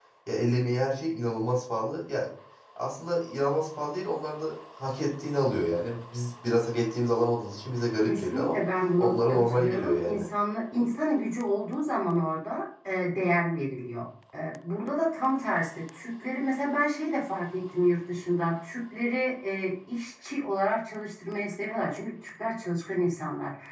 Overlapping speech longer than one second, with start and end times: 9.0-10.2

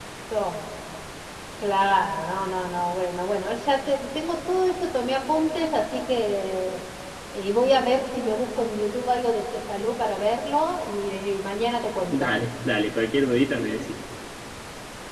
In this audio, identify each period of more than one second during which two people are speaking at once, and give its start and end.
none

